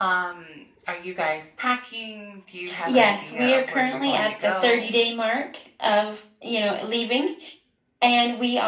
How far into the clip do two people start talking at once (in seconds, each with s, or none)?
2.7 s